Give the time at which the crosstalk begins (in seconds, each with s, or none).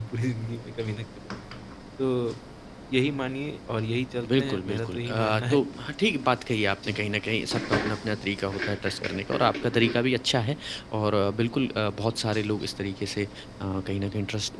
4.2 s